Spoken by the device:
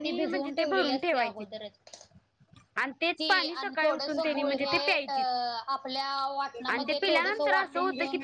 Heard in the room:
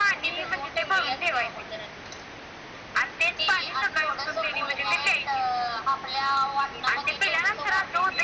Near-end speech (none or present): none